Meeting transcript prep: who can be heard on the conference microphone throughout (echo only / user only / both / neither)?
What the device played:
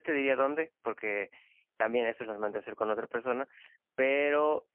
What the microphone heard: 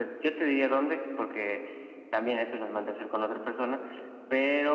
echo only